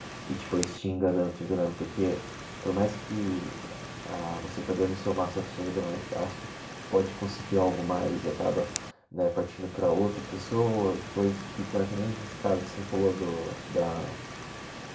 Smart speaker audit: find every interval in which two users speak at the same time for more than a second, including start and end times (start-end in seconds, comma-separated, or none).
none